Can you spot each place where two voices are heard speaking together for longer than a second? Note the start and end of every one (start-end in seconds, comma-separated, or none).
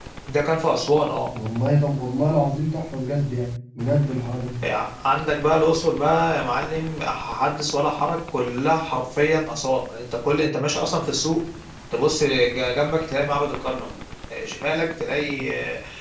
none